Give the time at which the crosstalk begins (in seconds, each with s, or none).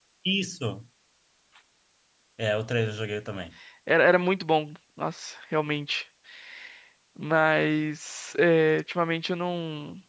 none